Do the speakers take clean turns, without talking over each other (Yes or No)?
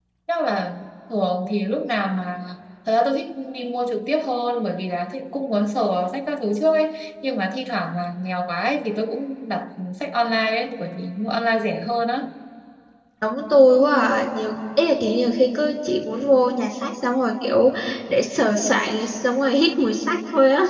Yes